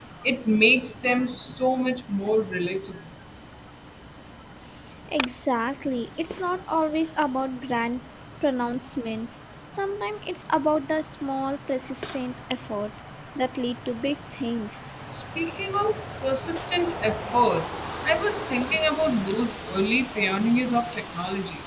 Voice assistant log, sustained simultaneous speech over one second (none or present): none